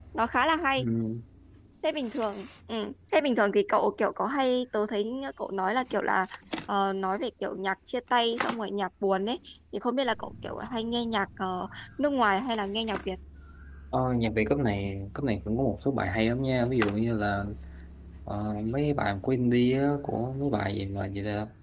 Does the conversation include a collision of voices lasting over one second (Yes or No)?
No